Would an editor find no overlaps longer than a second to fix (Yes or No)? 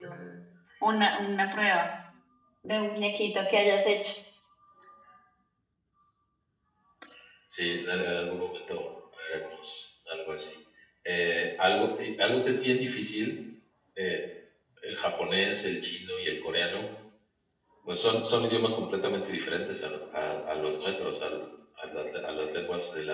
Yes